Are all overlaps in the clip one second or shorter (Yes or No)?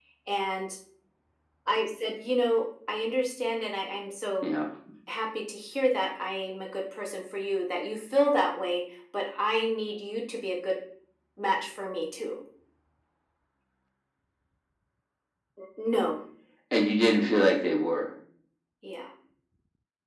Yes